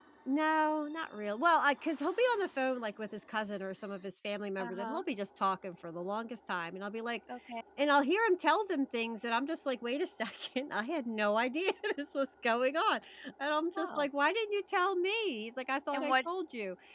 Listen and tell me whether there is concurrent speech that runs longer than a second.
No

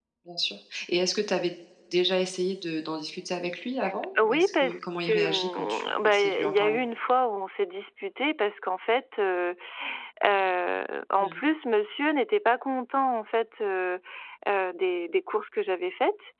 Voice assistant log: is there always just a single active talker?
No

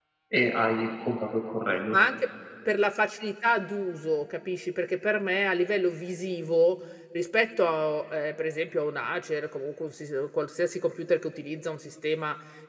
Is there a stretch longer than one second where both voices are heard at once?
No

